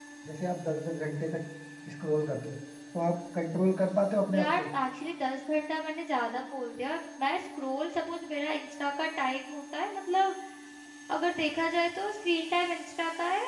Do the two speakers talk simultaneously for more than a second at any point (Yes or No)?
No